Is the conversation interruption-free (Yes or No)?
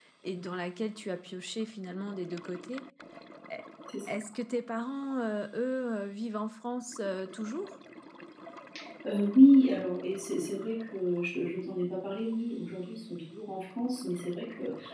Yes